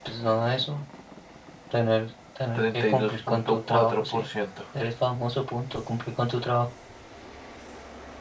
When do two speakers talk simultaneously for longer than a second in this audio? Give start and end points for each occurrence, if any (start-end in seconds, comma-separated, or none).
2.6-4.2